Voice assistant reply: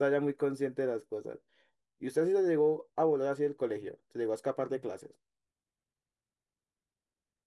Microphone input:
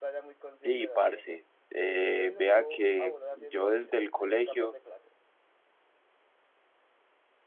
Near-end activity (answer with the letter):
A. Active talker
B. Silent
A